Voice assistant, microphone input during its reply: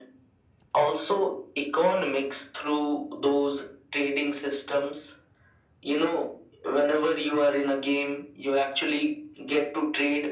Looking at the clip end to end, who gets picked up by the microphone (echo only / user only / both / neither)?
echo only